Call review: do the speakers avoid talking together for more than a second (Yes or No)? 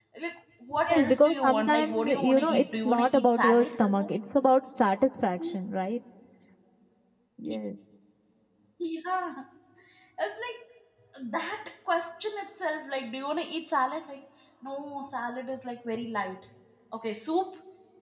No